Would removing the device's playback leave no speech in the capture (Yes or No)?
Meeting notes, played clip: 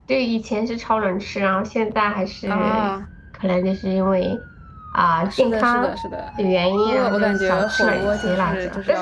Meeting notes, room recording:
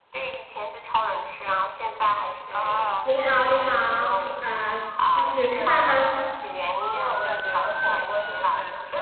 No